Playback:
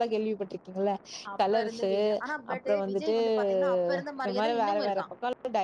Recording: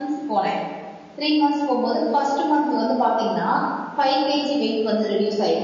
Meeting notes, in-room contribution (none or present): present